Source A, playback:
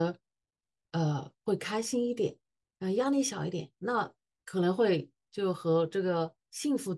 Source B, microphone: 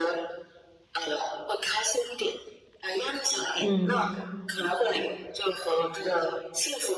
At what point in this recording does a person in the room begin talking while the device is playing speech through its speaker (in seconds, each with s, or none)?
3.6 s